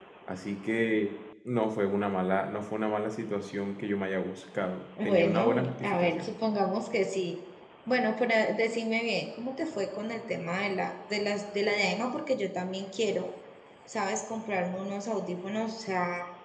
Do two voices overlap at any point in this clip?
Yes, from 5.0 s

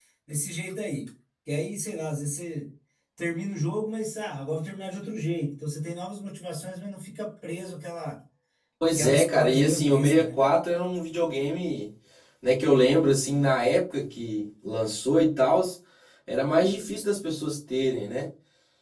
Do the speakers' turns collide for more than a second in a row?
Yes, from 9.0 s

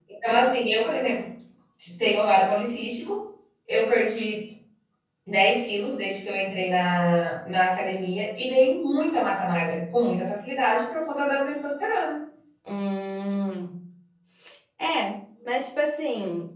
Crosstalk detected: No

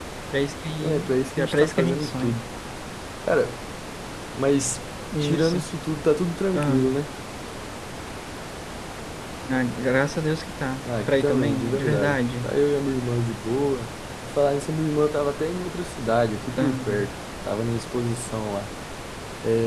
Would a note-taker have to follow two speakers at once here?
Yes, from 0.8 s

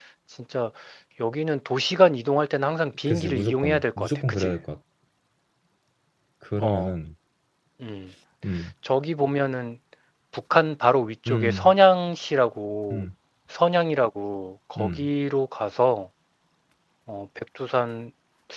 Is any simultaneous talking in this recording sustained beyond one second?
Yes, from 3.1 s

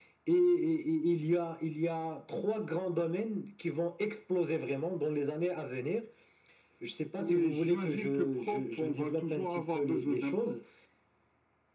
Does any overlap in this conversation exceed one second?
Yes, from 7.1 s

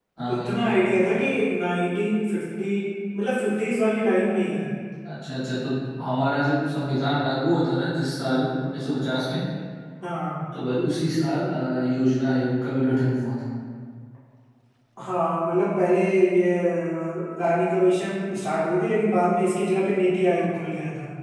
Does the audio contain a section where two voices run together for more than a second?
No

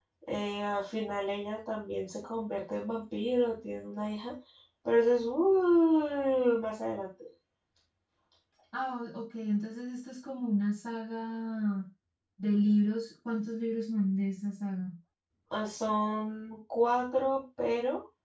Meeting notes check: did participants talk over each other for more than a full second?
No

